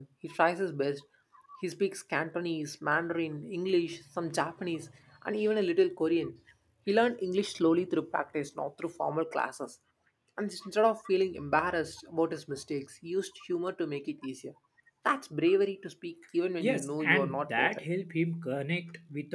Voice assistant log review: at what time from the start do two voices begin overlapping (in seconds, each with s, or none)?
16.6 s